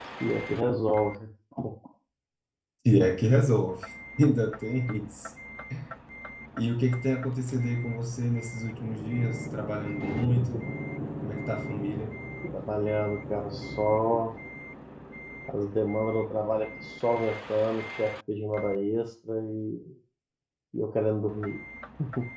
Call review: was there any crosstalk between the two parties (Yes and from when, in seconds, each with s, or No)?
No